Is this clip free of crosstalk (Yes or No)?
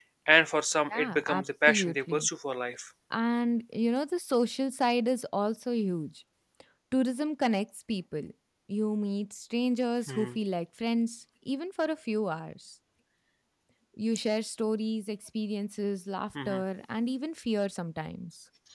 No